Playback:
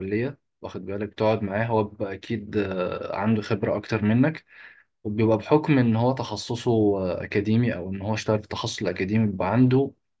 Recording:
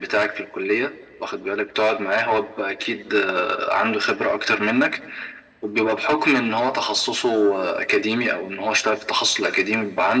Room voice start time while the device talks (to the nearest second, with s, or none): none